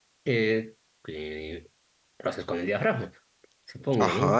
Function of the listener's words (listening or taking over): taking over